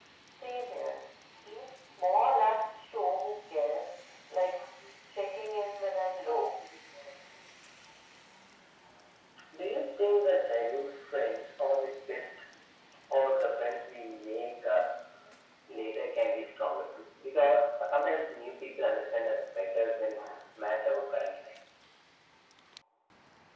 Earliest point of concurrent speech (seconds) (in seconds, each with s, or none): none